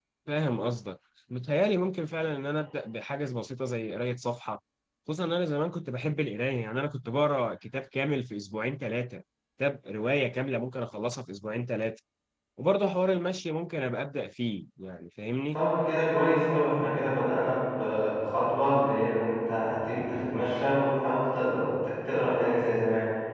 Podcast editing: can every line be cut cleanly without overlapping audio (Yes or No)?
Yes